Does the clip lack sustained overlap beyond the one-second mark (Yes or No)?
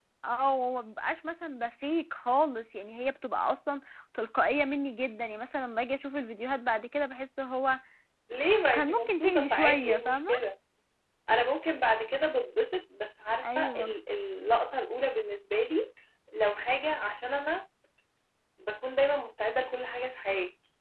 No